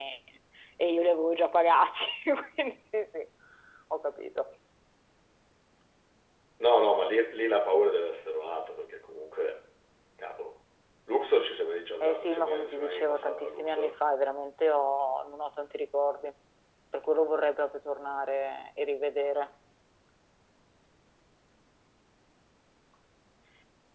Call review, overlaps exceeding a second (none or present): present